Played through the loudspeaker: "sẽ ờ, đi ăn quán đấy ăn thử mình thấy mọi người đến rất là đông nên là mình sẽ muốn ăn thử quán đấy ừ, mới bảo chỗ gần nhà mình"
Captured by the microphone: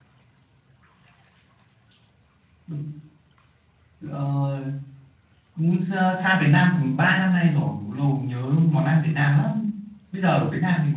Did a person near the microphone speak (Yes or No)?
Yes